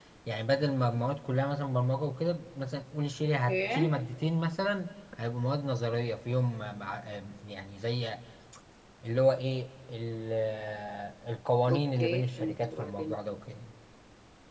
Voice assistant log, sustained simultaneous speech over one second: present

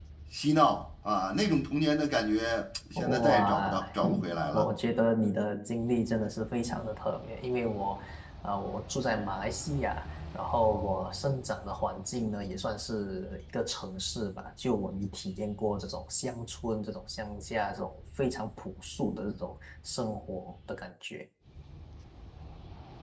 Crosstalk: present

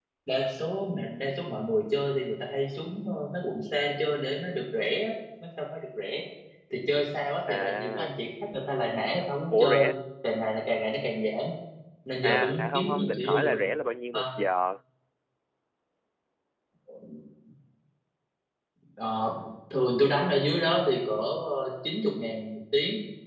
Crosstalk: present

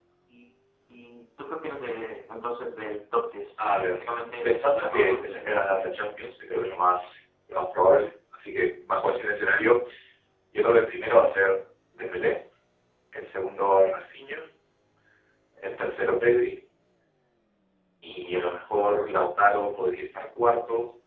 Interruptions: present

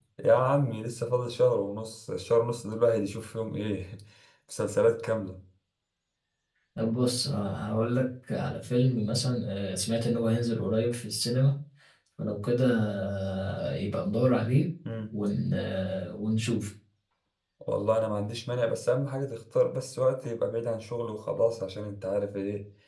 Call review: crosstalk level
none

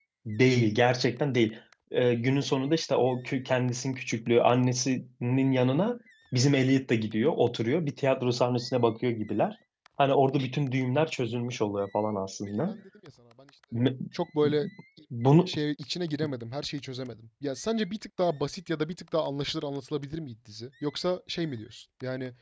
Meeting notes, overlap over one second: none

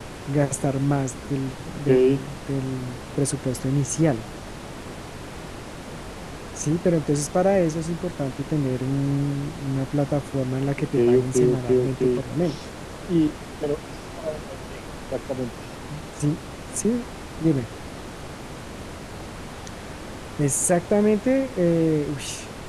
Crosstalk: present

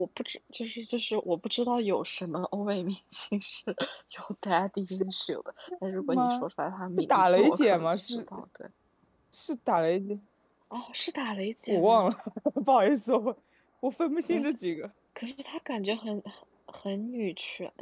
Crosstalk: present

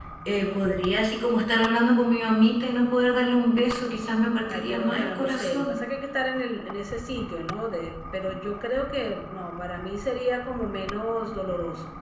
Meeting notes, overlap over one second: present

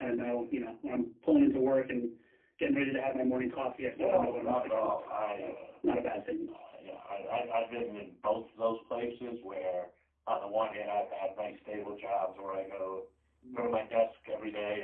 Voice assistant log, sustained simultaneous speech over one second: present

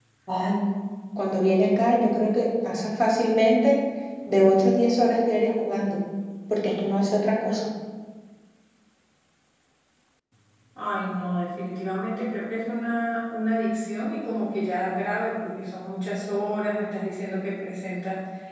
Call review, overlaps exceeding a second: none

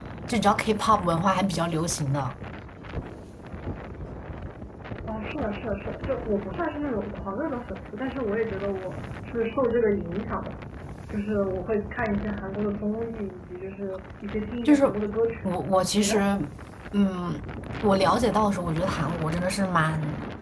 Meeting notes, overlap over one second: none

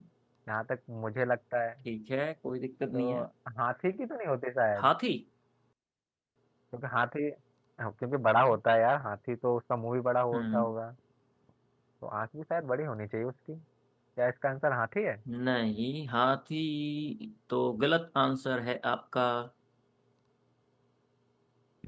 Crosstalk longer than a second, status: none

